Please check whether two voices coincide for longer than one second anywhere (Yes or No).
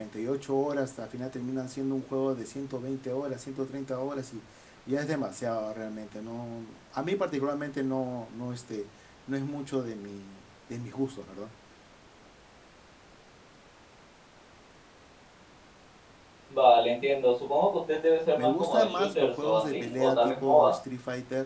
Yes